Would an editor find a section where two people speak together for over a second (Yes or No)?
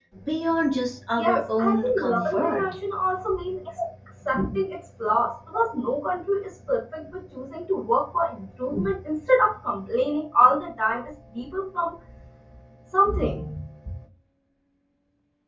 Yes